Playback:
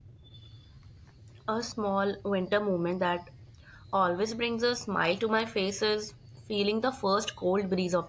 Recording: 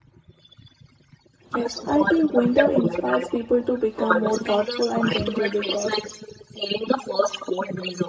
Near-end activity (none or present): present